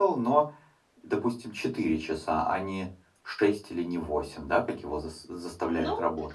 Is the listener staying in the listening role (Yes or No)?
No